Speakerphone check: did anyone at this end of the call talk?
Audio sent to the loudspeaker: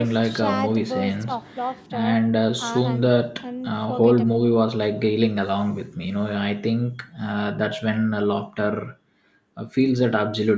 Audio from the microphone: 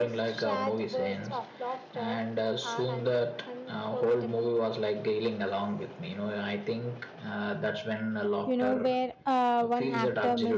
Yes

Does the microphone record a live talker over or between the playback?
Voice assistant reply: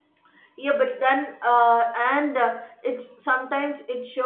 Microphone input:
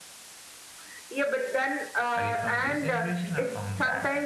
Yes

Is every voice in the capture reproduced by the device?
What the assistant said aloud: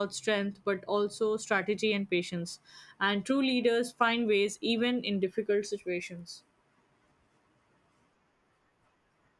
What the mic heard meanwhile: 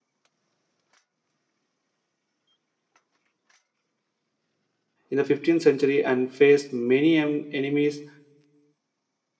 No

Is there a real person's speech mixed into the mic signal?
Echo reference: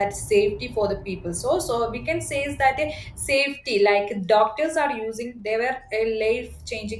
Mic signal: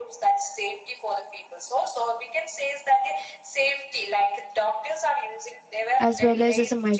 Yes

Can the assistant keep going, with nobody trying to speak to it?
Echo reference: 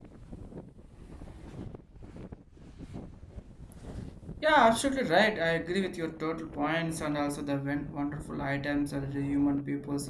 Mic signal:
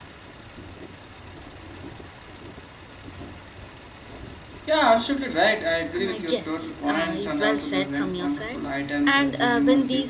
No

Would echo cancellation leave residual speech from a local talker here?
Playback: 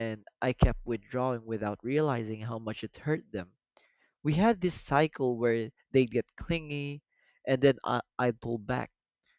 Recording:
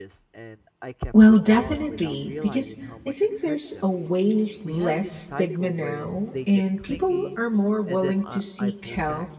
Yes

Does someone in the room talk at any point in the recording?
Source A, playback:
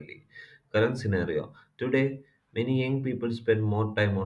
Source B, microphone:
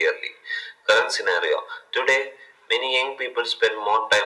No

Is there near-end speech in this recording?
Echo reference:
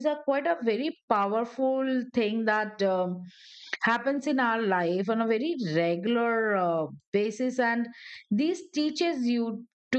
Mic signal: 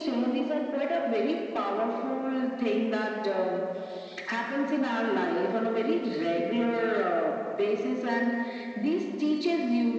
No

